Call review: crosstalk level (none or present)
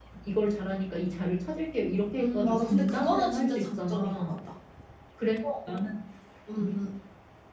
present